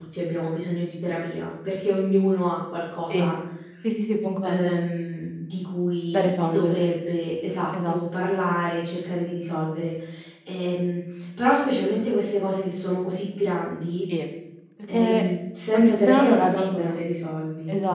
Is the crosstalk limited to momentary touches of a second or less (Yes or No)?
No